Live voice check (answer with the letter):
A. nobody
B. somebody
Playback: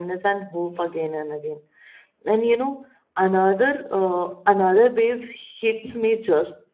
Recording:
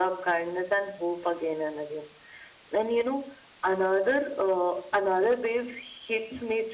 A